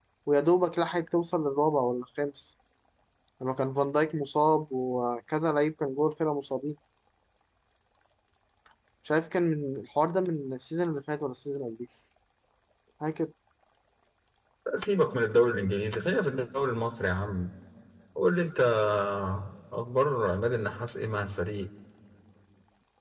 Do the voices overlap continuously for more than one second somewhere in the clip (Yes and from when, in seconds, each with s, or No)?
No